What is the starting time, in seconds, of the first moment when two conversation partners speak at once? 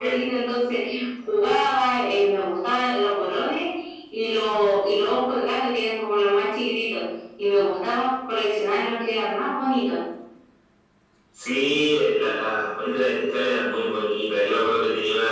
none

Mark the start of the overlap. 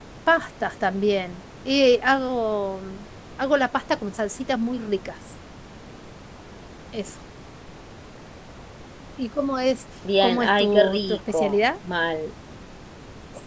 10 s

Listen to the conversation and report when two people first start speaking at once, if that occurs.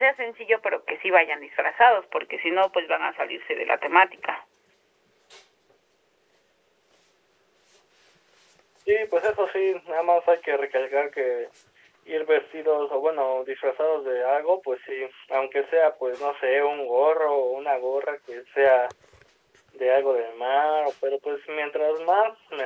none

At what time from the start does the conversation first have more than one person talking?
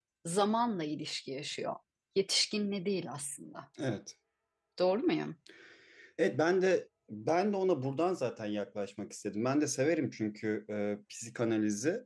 none

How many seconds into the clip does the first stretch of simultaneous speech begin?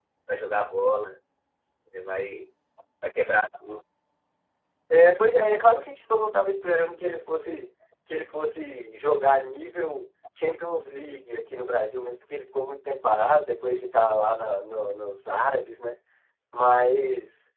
none

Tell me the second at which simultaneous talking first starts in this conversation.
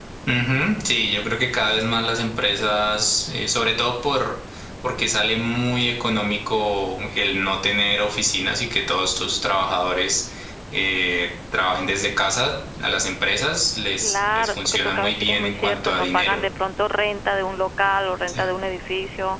14 s

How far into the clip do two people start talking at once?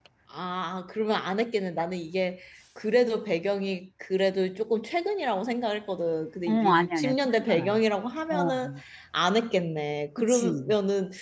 6 s

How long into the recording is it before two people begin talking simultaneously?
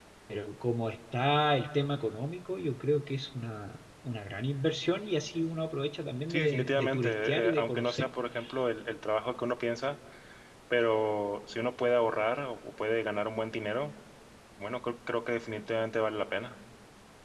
6 s

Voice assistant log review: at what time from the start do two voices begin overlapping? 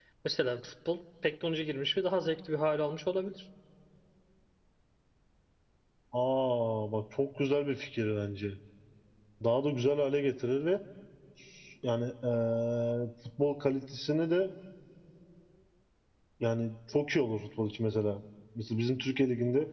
none

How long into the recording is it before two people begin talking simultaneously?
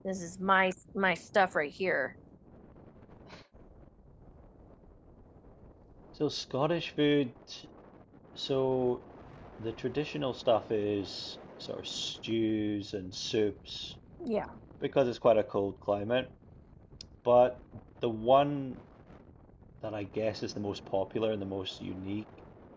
none

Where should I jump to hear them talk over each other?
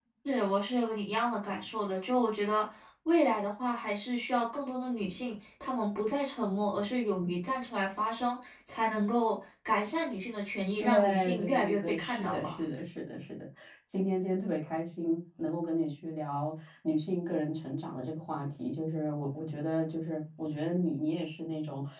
11 s

